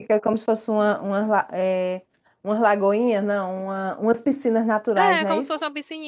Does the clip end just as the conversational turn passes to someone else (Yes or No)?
Yes